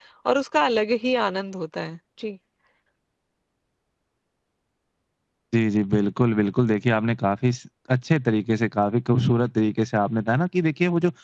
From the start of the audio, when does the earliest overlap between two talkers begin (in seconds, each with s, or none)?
none